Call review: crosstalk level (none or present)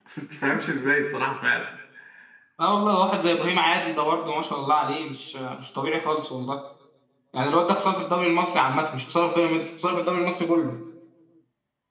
none